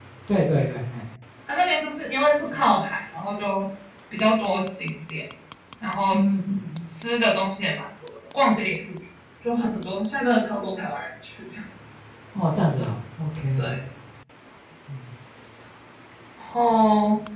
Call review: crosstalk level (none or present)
none